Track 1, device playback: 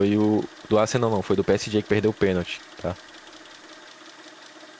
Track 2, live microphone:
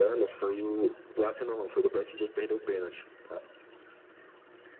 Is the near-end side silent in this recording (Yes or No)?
Yes